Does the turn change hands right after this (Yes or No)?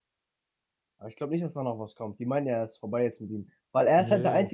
No